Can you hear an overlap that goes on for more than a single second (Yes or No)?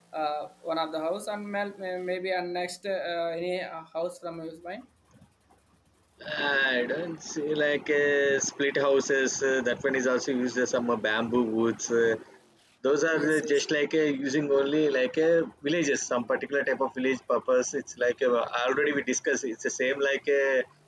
No